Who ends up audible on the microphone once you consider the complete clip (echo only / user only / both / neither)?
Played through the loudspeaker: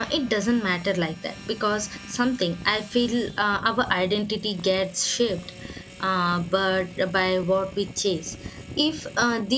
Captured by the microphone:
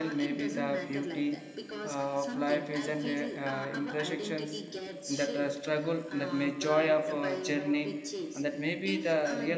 both